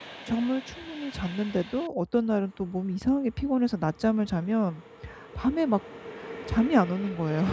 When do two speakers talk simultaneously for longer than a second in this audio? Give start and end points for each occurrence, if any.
none

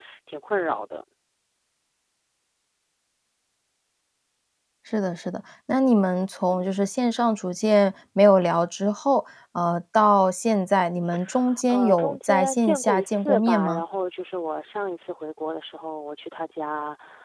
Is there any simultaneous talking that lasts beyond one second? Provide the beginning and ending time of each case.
11.7-13.8

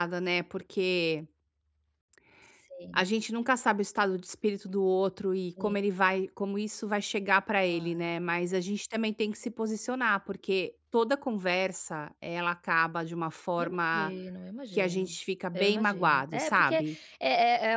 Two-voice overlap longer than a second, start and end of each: 15.5-16.8

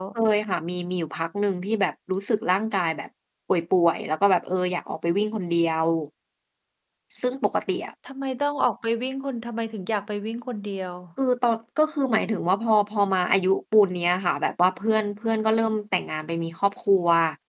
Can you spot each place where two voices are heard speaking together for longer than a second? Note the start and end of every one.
none

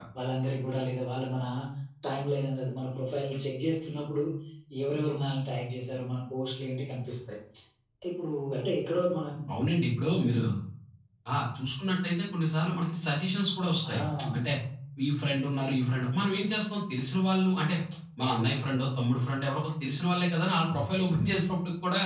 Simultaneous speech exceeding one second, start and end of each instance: none

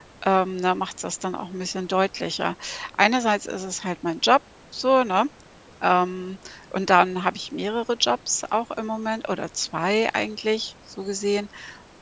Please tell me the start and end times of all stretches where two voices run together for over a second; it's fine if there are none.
none

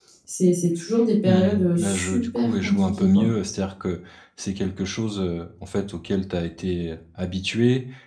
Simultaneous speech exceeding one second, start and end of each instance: 1.3-3.2

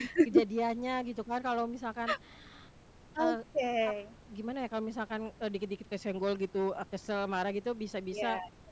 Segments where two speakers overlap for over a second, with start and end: none

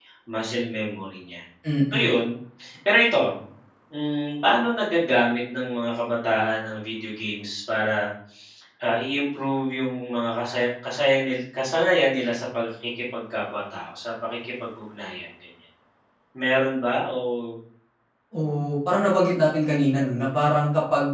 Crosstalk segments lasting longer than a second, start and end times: none

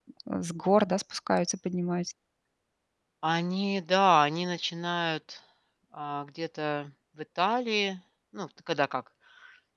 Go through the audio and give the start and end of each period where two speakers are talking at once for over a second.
none

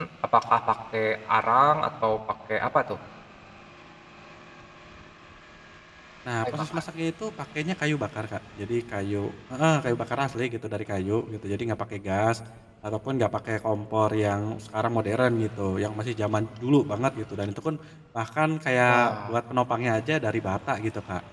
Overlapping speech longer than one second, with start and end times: none

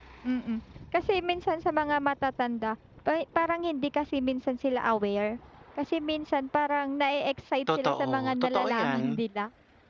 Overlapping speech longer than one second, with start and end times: 7.7-9.2

